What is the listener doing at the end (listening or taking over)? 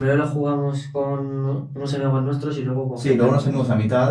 taking over